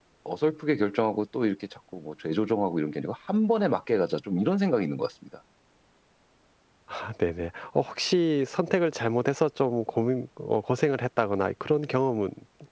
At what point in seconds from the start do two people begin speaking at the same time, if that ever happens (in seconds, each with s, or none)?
none